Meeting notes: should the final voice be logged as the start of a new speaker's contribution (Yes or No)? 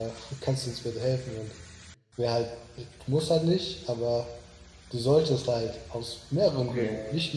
No